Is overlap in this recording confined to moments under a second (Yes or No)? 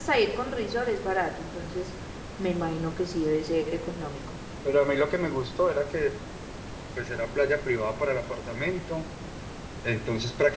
Yes